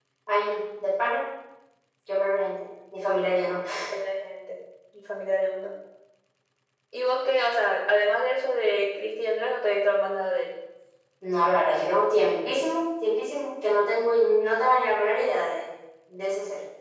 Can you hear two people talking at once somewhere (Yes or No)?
No